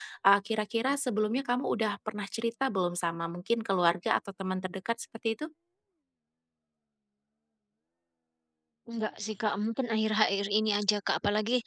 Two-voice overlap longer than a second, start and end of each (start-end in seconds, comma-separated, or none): none